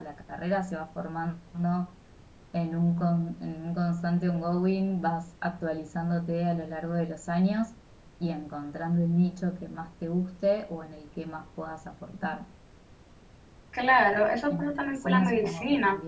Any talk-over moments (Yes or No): Yes